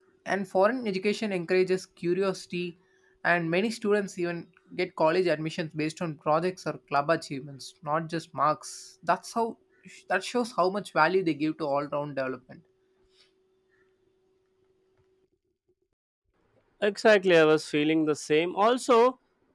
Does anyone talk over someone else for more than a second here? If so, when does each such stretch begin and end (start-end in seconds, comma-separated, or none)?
none